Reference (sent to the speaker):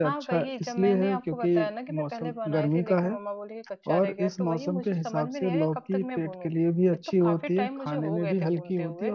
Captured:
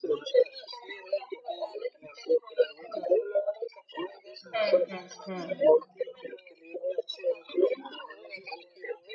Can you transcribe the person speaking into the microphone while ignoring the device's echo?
हम्म हम्म हम्म

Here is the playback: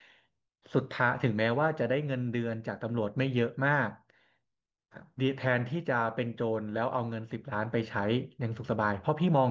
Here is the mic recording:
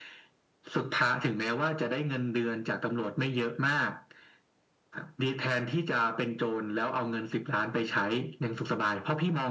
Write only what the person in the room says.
none

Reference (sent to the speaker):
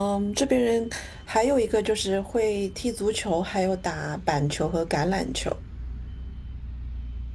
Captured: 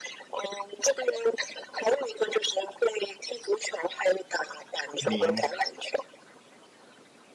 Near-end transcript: 明白。

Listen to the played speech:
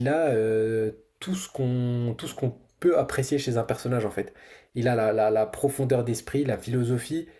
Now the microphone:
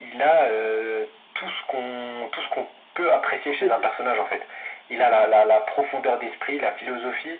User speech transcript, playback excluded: en fait,

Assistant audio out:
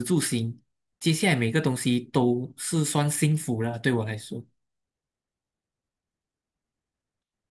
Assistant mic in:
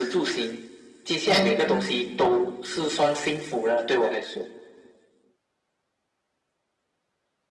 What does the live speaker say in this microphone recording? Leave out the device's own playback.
嗯

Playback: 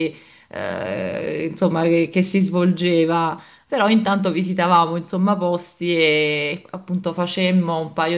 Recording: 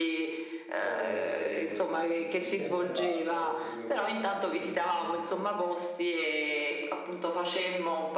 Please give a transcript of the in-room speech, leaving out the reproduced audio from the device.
e mi sembra basta, forse pure qualcos'altro che mo non mi viene in mente.

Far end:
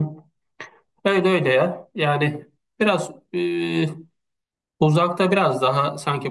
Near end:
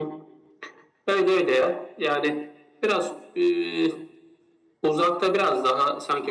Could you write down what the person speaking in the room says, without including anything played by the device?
none

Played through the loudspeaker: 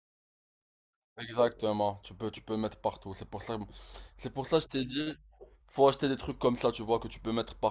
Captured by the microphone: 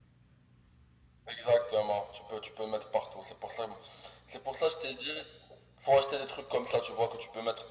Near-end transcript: none

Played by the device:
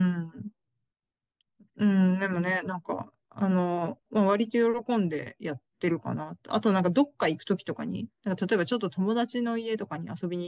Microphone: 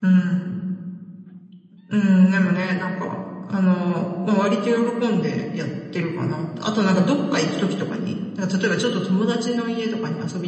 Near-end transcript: none

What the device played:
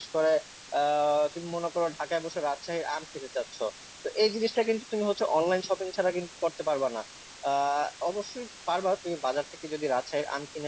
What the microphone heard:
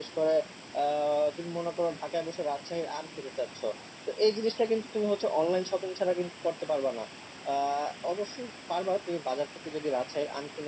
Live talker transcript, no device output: none

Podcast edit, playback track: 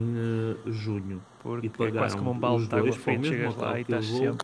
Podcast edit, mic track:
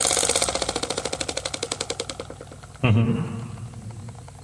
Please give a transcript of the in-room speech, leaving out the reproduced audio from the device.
uhum,

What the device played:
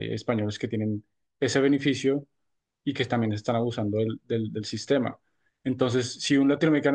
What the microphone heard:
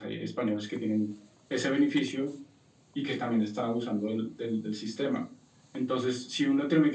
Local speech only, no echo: none

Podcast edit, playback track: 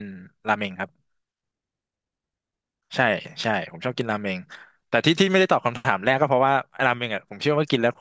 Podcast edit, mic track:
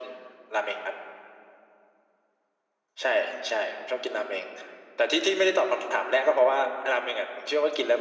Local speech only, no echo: none

